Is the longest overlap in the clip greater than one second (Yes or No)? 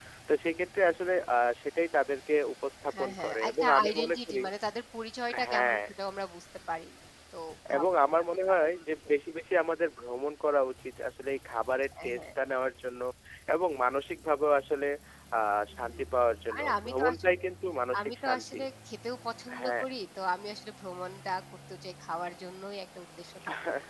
Yes